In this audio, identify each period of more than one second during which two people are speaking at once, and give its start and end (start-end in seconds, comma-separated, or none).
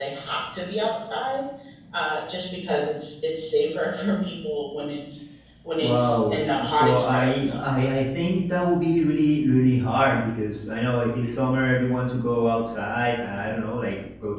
5.8-7.8